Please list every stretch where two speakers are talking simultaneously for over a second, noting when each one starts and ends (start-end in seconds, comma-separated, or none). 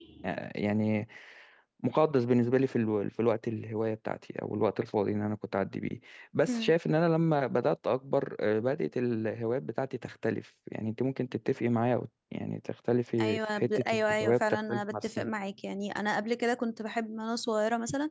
13.2-15.3